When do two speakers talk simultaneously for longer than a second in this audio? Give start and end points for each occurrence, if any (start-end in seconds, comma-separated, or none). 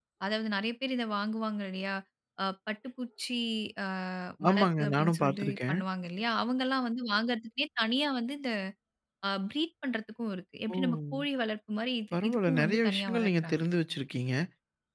4.5-5.8, 12.1-13.7